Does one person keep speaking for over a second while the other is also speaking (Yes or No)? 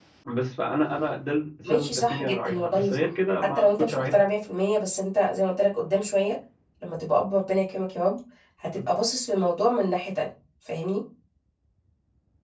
Yes